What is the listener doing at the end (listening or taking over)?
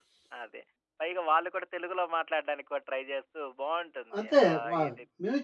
taking over